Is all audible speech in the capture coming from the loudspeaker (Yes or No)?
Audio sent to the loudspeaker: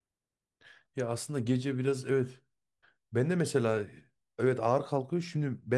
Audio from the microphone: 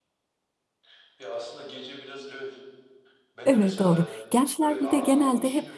No